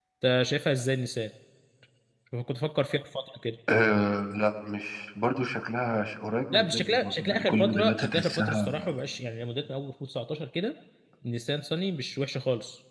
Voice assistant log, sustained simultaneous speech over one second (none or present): present